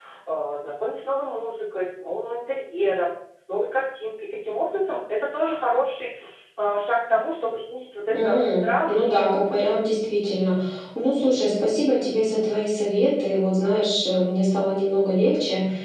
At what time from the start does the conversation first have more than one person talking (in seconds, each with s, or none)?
8.1 s